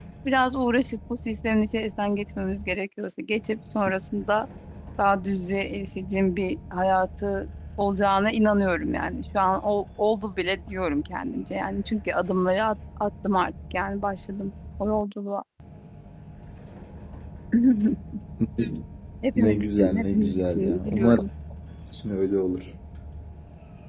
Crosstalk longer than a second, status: present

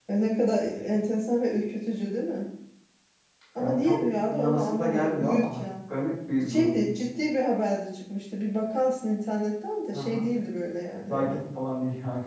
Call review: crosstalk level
present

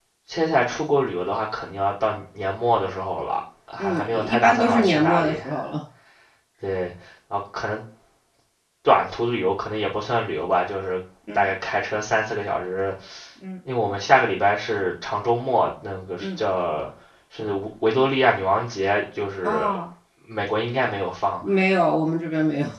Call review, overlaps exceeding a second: present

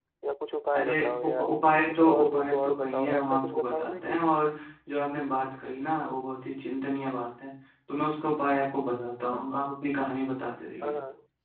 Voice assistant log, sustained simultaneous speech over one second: present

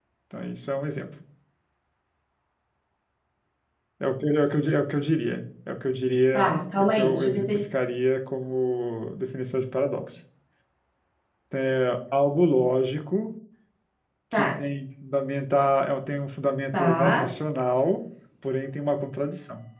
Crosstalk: present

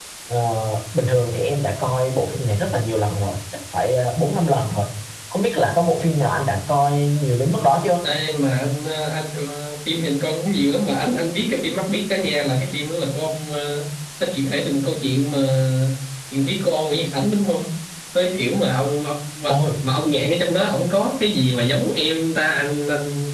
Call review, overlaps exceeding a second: none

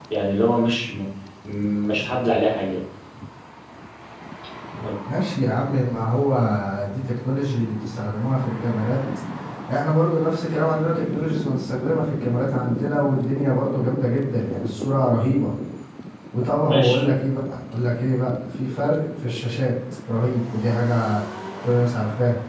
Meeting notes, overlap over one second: none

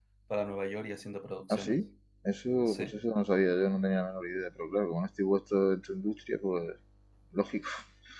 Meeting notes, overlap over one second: none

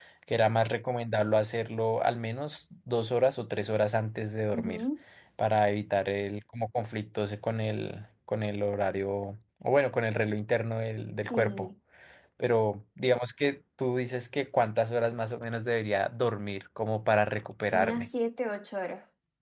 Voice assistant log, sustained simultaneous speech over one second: none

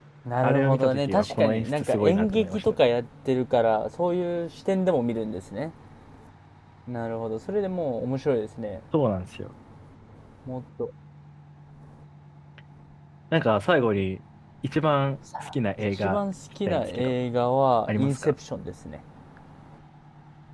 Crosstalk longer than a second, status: present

